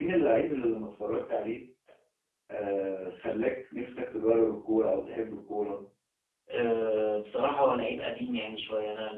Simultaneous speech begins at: none

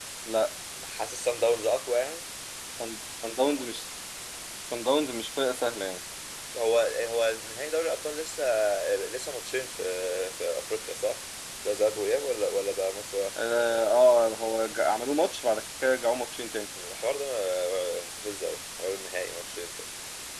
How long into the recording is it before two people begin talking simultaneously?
none

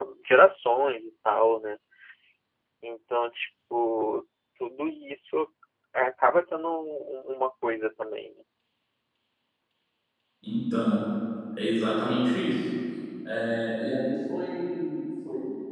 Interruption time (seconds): none

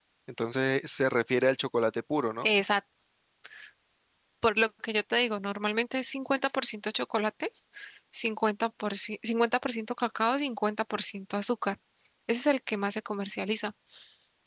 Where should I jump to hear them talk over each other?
none

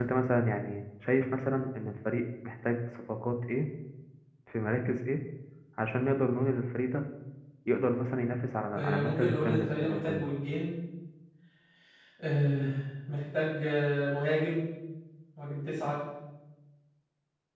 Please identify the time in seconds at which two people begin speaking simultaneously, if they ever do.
9 s

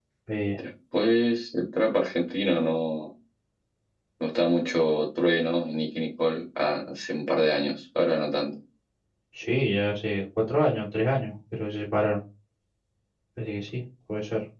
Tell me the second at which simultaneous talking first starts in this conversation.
none

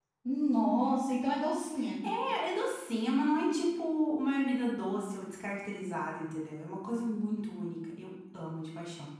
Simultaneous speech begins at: none

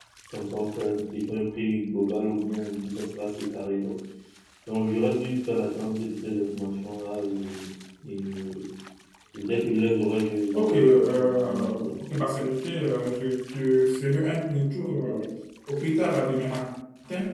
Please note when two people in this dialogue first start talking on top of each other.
11 s

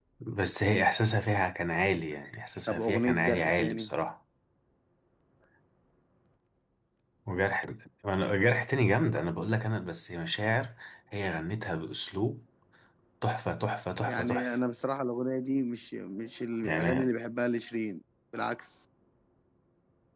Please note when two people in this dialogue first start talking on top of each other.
3 s

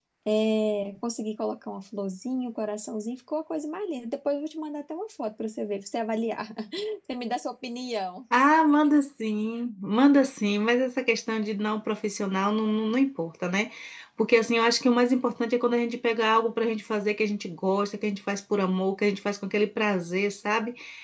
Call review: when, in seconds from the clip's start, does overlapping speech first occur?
none

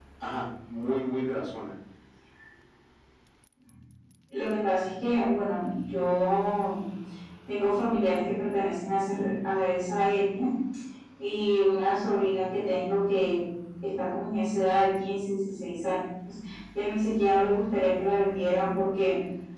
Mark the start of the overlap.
none

